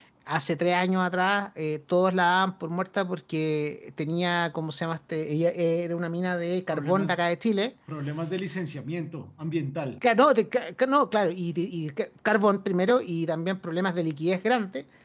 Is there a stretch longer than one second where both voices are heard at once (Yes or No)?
No